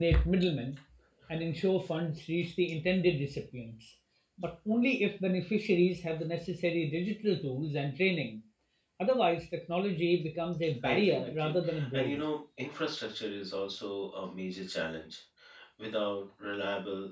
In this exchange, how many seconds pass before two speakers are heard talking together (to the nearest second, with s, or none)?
11 s